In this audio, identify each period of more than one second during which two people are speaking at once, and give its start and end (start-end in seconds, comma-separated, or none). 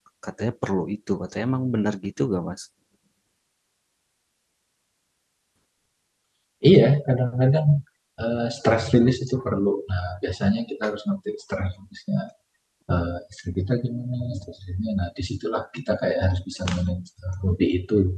none